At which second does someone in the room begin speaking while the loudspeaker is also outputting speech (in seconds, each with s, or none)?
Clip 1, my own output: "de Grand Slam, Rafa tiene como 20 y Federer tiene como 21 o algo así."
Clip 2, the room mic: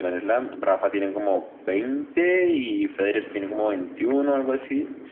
none